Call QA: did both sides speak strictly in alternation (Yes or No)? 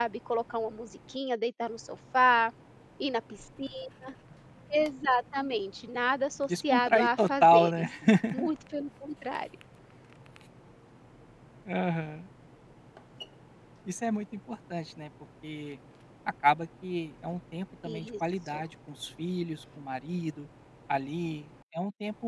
No